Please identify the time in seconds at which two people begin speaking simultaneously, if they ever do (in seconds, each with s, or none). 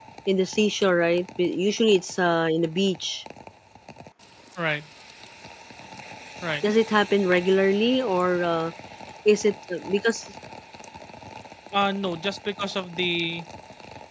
none